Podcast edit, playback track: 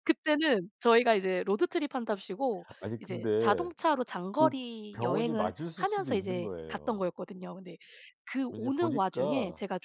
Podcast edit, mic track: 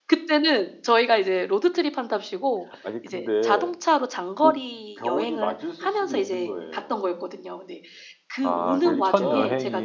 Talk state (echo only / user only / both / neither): both